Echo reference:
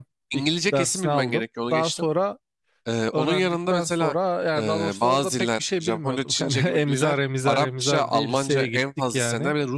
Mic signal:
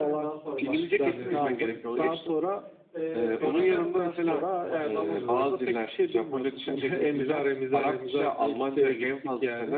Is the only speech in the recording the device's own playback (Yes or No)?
No